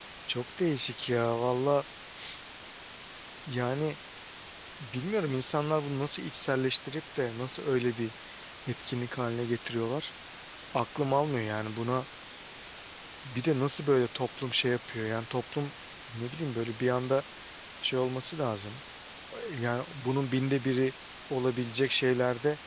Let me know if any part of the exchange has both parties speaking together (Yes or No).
No